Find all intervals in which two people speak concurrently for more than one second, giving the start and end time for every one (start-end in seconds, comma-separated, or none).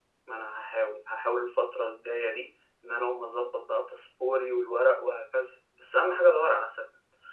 none